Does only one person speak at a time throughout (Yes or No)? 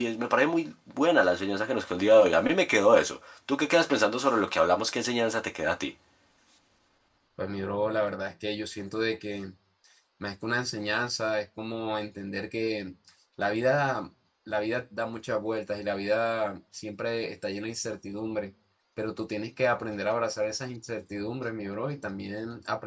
Yes